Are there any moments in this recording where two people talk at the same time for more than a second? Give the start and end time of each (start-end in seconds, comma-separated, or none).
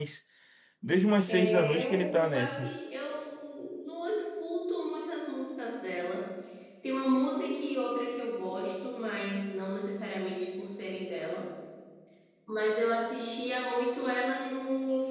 1.3-2.7